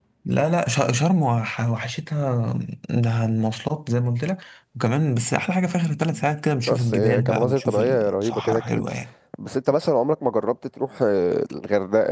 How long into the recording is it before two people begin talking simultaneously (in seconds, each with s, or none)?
6.7 s